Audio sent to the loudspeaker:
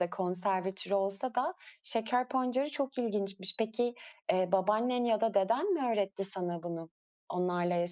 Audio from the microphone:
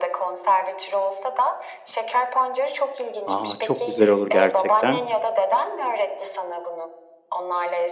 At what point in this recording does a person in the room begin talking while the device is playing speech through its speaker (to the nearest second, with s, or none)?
3 s